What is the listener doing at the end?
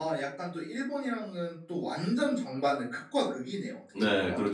taking over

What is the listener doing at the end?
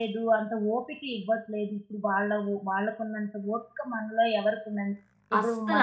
listening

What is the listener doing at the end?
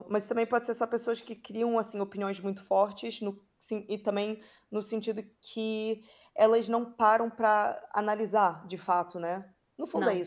listening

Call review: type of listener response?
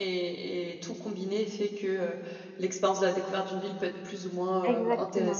taking over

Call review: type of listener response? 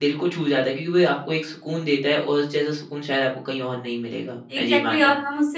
taking over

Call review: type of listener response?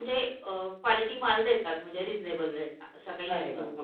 taking over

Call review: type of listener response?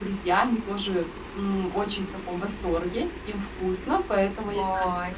listening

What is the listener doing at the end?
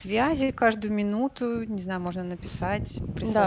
taking over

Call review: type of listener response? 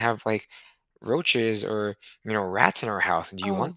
taking over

